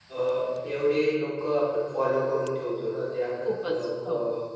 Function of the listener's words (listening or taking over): listening